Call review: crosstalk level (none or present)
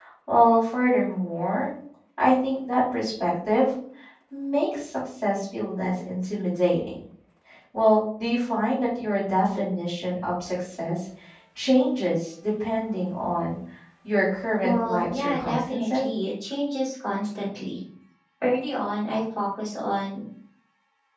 present